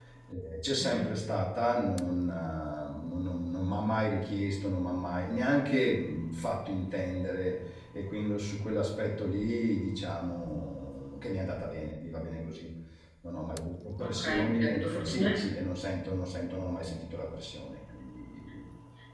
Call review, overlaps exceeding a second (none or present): present